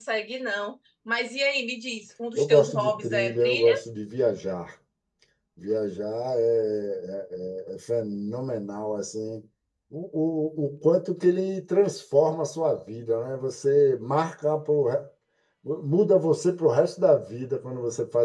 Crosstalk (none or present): present